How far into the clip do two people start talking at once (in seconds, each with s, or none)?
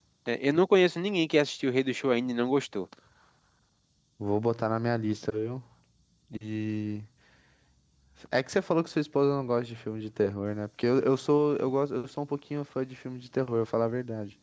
none